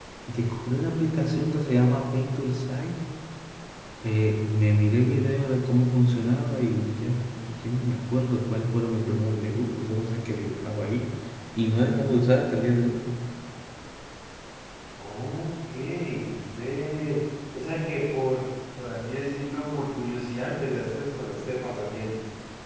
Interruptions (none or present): none